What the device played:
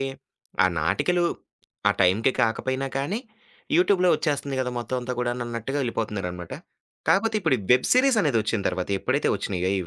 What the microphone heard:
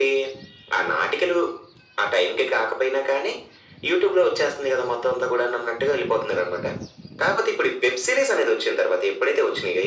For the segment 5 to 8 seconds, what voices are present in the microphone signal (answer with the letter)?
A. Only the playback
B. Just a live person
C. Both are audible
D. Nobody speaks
A